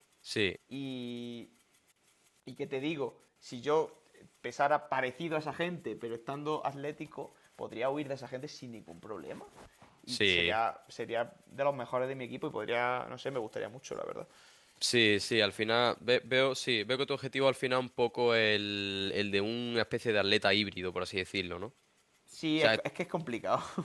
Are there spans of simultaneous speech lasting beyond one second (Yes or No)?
No